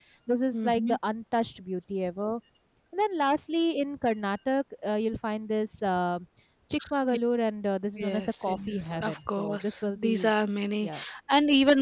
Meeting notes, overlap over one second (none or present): present